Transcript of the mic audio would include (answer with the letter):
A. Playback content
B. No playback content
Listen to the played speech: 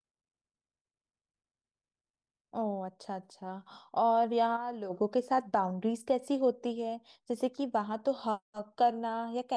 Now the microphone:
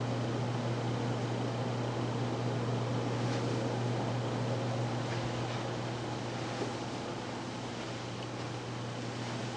B